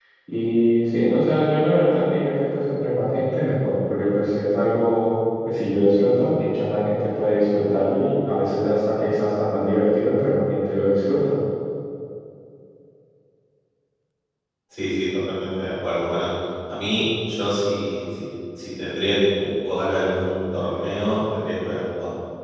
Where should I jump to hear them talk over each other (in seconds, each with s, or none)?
none